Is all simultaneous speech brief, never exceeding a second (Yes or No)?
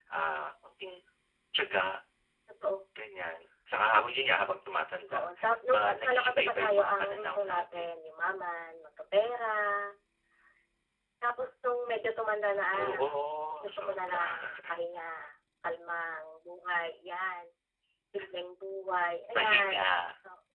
No